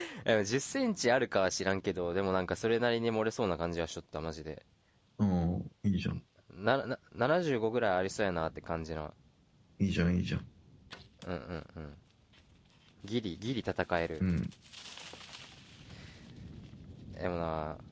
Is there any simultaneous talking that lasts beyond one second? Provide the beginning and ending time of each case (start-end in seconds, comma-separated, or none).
none